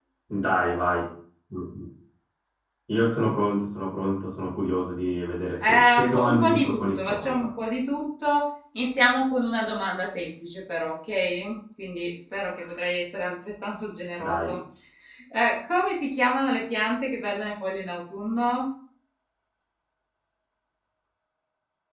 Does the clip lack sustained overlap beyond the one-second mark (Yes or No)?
No